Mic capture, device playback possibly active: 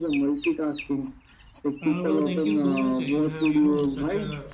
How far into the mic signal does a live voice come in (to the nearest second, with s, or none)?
2 s